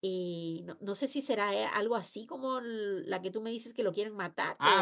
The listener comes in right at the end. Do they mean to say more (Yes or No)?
Yes